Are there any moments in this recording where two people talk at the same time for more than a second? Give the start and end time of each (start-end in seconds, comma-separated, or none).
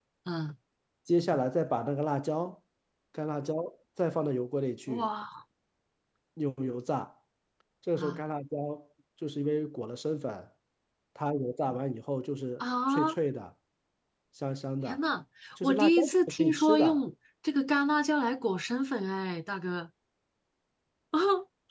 15.6-17.0